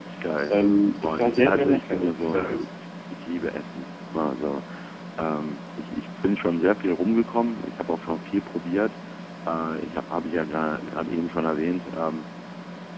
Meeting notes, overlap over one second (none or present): present